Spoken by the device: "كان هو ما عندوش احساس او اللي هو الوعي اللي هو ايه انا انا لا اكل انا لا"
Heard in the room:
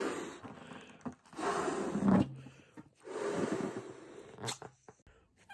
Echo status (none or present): none